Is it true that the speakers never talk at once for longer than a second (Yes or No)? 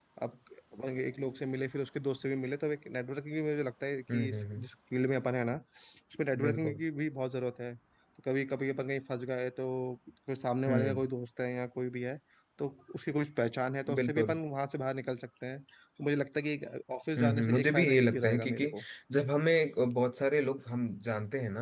No